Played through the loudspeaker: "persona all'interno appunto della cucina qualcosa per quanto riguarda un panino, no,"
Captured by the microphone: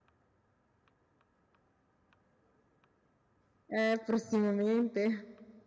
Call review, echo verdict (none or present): none